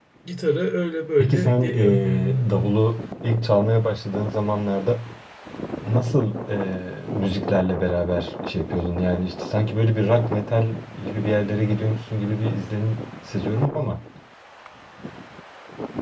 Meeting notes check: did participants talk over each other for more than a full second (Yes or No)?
Yes